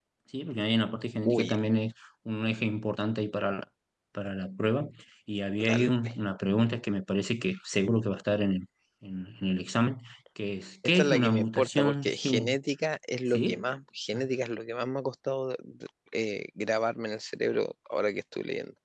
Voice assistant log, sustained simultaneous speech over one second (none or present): present